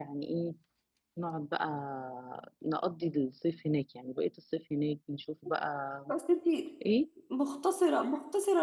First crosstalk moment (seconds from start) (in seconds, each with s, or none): none